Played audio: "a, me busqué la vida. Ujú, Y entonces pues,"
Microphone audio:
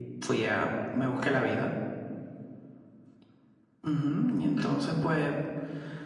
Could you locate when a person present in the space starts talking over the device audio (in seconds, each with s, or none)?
none